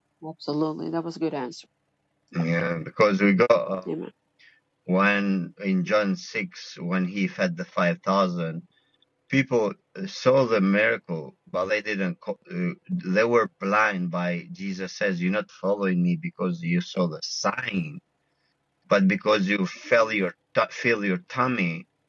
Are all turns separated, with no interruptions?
Yes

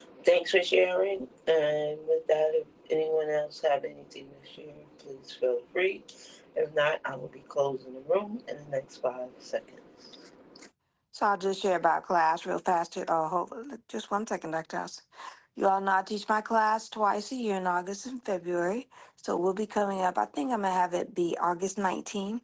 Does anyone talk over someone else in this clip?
No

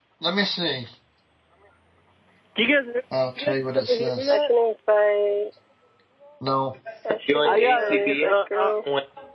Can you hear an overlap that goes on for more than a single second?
Yes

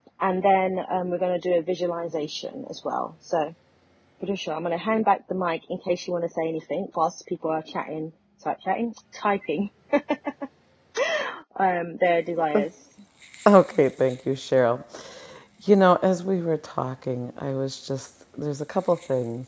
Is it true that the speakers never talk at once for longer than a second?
Yes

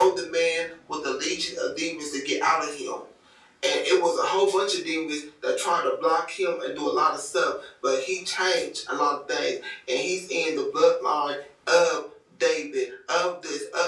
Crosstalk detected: No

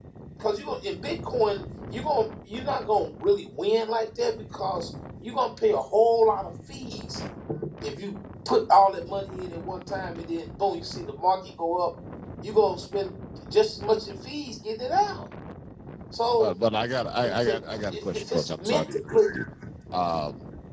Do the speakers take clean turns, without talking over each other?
No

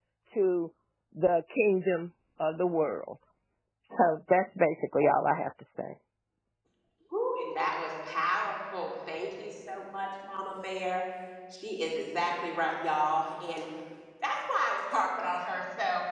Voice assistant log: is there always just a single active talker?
Yes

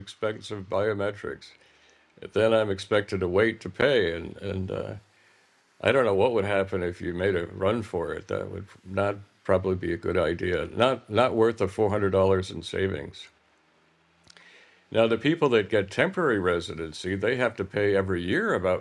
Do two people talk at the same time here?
No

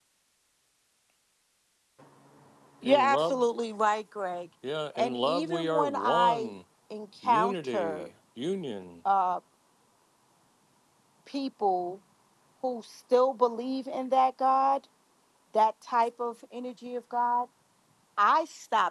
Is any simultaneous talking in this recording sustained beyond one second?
Yes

